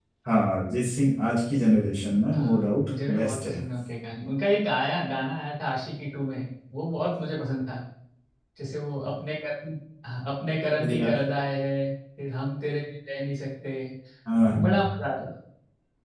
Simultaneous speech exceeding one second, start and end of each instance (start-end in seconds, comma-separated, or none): 2.3-3.6